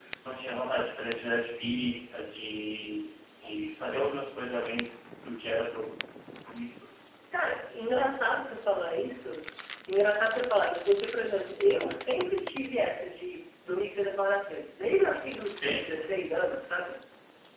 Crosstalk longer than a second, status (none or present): none